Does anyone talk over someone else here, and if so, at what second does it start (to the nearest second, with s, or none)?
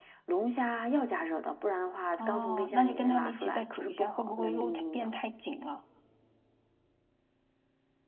2 s